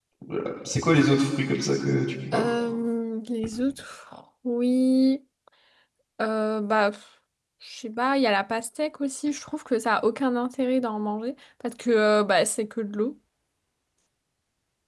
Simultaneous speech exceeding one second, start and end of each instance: none

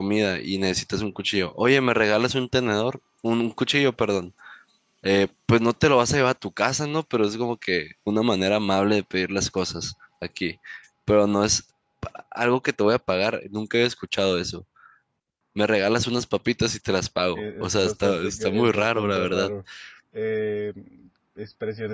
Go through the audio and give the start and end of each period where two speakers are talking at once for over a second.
17.4-19.5

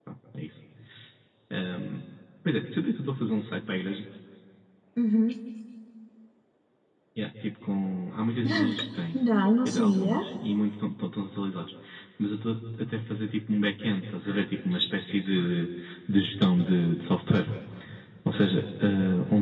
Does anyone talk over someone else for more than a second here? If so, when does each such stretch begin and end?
none

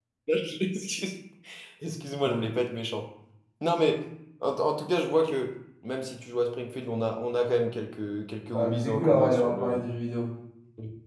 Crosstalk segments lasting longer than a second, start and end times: 8.5-9.8

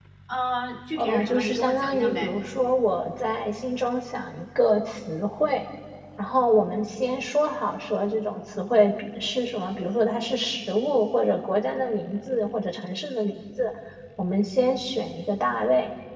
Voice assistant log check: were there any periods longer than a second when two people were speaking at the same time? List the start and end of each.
1.0-2.3

